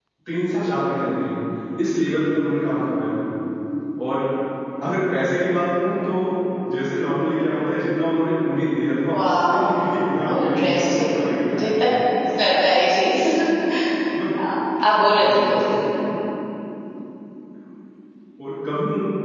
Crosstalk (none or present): present